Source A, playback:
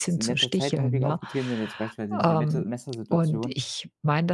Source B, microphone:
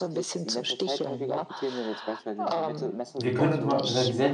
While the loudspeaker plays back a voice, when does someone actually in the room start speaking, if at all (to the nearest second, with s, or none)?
3 s